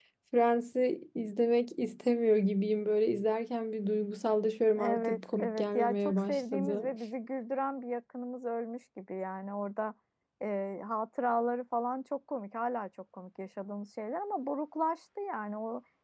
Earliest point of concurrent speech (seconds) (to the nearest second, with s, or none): 5 s